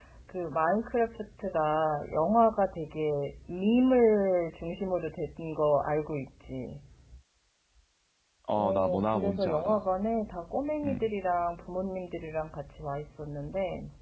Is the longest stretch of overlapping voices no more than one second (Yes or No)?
No